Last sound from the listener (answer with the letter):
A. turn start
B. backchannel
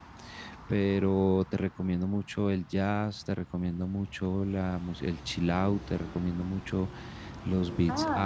A